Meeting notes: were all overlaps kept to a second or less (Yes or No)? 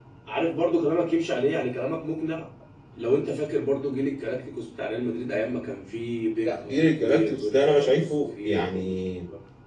No